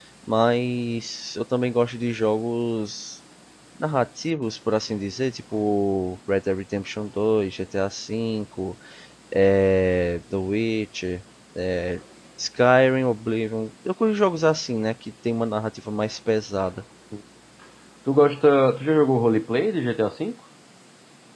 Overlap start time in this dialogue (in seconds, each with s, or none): none